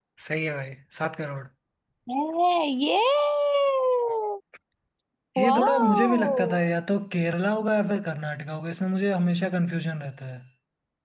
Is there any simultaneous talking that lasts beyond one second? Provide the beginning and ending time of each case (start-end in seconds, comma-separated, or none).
5.4-6.6